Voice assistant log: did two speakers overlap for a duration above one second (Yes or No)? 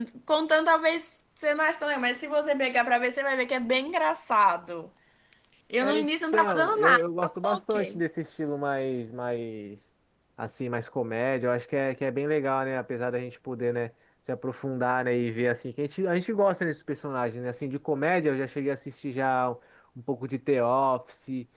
Yes